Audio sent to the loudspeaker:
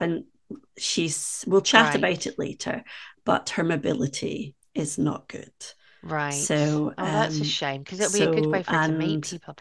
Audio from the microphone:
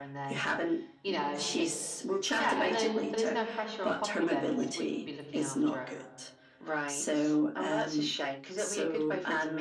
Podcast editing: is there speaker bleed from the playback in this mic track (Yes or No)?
Yes